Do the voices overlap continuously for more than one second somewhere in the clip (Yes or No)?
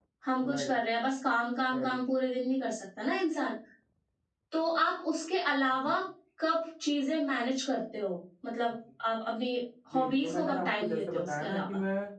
Yes